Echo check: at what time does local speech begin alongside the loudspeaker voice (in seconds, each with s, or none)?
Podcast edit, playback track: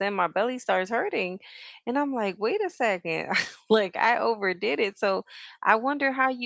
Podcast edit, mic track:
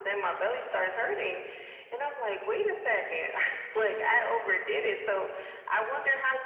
none